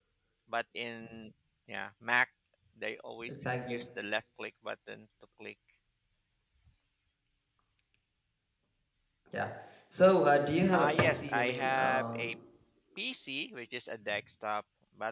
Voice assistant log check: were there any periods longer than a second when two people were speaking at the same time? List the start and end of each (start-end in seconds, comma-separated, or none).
10.8-12.3